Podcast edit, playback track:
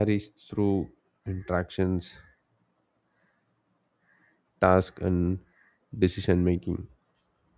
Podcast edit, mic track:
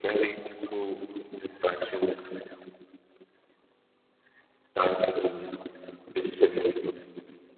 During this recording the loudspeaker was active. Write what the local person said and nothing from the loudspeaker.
none

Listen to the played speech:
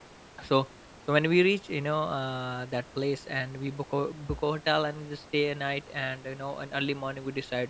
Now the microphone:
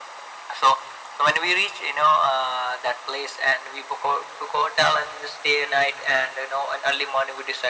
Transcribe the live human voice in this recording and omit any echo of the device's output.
none

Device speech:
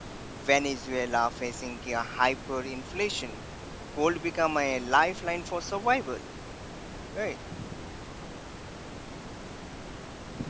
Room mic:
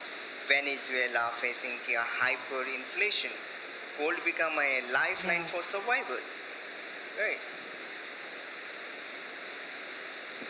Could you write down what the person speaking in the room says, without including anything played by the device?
yeah

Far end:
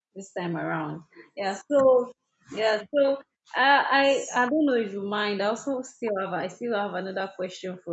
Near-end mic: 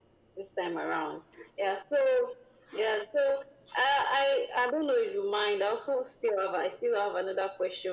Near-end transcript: none

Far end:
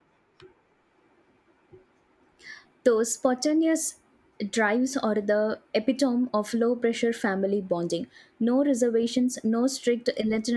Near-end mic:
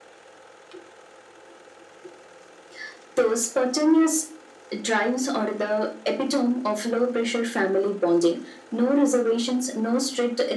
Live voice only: none

